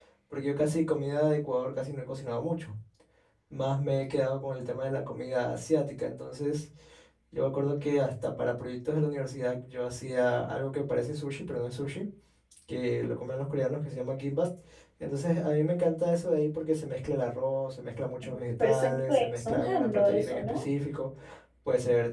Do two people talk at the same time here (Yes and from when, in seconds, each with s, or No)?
Yes, from 18.6 s